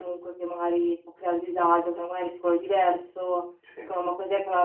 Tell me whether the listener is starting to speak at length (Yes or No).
No